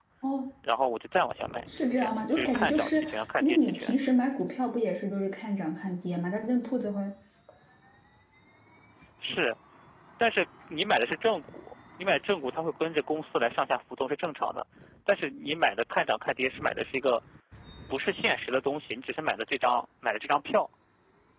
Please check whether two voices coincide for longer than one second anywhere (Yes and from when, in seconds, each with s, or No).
Yes, from 1.7 s